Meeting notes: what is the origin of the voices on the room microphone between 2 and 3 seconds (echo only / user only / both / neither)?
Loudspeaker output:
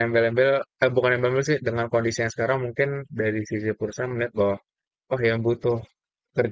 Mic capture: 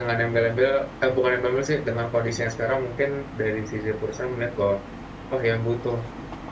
echo only